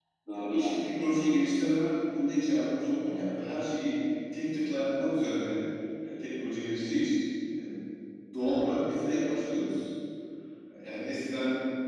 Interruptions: present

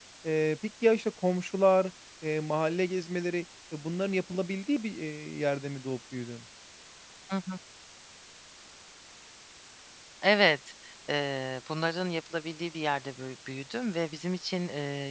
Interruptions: none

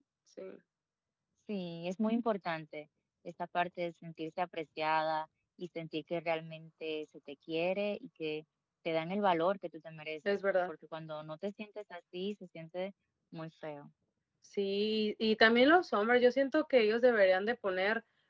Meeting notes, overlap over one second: none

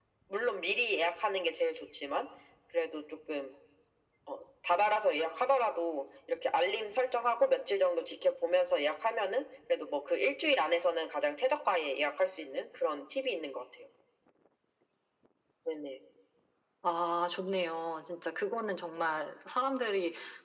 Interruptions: none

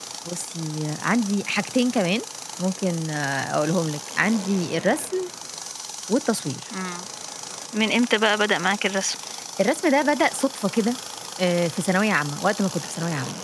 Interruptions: none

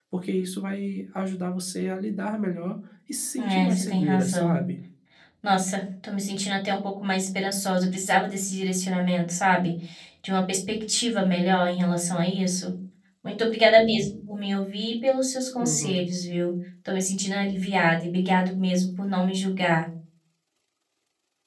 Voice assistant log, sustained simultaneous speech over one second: present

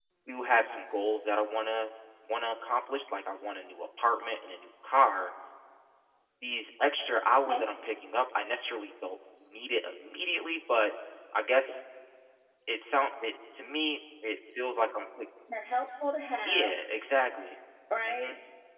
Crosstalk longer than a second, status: none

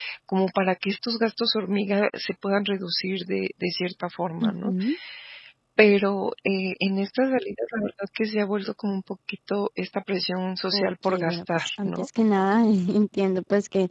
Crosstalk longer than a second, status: present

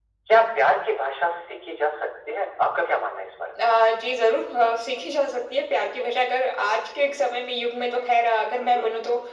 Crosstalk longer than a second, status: none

